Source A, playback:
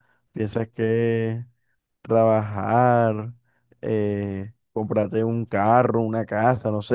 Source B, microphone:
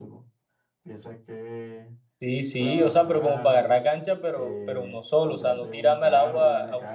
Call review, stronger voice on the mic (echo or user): user